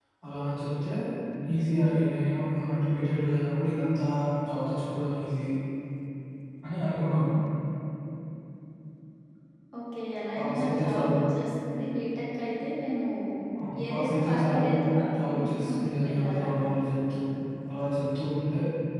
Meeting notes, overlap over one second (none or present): present